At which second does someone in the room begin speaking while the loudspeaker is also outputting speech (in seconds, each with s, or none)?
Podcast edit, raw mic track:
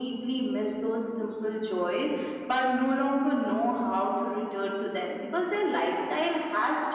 none